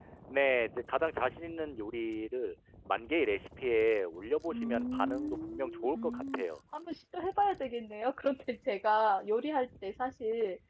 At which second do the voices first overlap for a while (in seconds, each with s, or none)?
4.5 s